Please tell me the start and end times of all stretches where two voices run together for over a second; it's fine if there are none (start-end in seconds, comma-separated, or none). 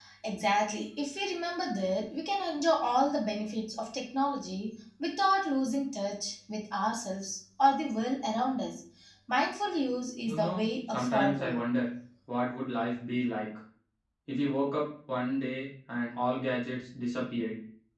10.3-11.6